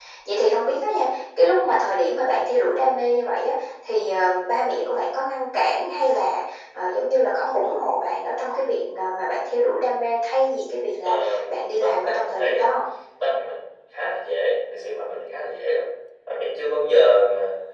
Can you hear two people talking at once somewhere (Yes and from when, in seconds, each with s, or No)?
Yes, from 11.0 s